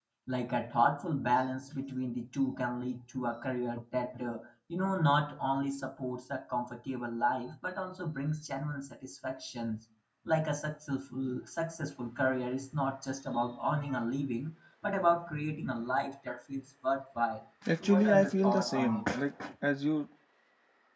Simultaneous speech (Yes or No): Yes